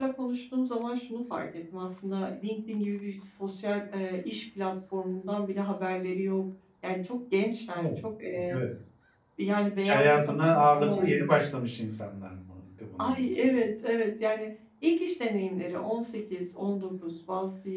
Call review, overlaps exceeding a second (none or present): present